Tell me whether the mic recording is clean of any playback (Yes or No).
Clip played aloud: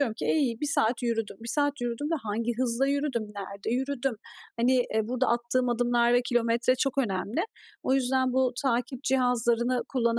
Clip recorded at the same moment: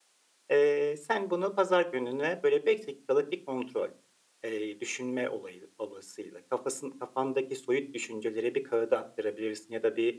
Yes